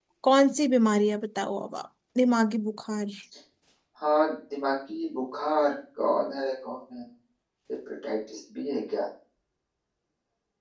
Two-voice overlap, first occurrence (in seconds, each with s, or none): none